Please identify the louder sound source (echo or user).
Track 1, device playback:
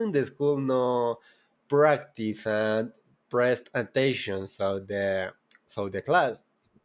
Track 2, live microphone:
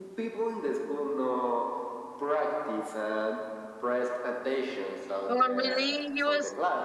user